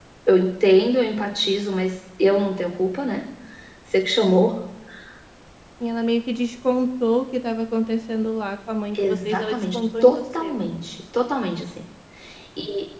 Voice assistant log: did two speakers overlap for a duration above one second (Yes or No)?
Yes